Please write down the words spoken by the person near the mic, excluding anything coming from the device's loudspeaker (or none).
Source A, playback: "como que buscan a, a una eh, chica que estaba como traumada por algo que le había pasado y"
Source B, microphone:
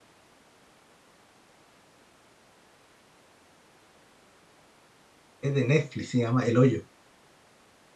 Es de Netflix, se llama El Hoyo.